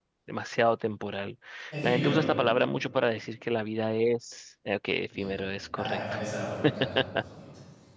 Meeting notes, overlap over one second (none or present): none